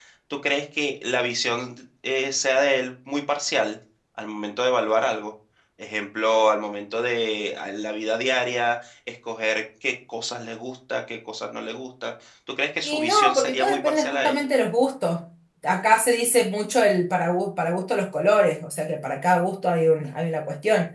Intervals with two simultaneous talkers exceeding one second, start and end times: 12.8-14.4

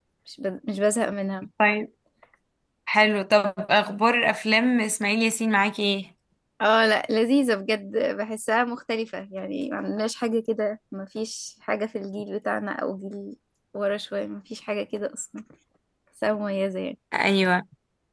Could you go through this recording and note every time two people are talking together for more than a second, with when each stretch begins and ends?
none

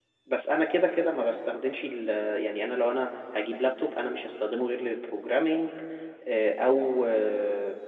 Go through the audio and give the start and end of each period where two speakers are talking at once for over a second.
none

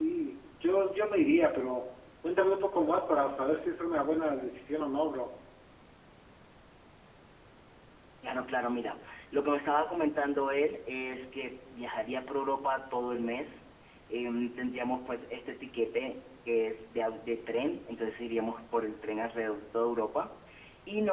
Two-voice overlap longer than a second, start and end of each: none

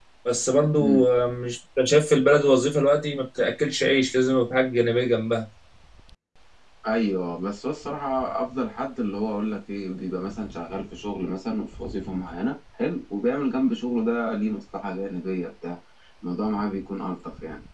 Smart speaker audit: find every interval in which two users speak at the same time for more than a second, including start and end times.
none

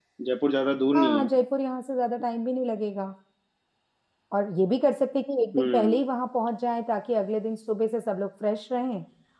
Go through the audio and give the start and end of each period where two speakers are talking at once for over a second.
none

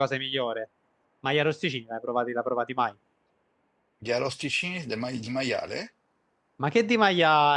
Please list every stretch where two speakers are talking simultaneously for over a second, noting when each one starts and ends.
none

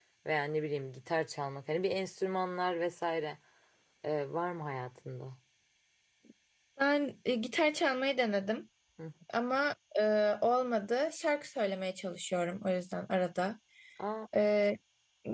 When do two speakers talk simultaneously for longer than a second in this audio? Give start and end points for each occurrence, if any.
none

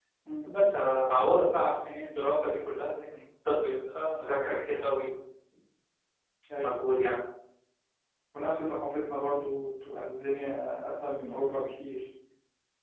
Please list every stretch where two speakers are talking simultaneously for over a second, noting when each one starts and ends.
none

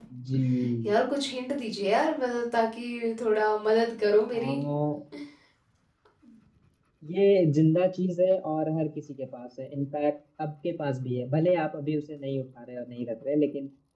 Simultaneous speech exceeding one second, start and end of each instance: none

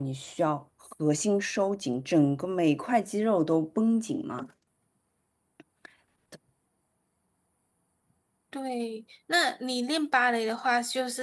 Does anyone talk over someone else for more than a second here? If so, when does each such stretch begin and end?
none

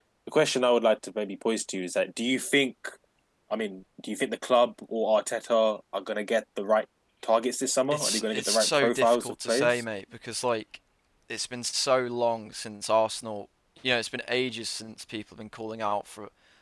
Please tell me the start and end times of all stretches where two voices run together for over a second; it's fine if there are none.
7.9-9.8

